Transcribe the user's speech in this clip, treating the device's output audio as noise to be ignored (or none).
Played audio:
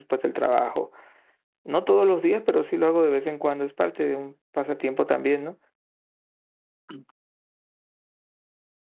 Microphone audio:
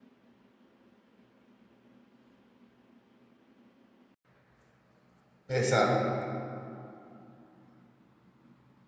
Exacto.